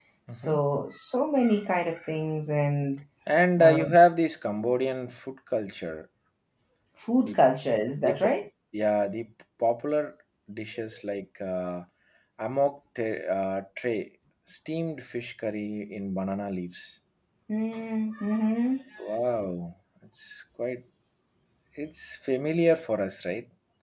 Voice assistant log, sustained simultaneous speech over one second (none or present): none